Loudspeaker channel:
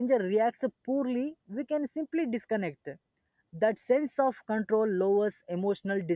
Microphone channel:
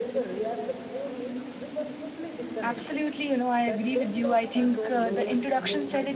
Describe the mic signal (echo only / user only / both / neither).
both